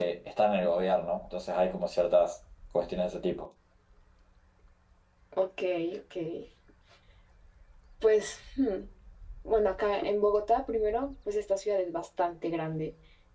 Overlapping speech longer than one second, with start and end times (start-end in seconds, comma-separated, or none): none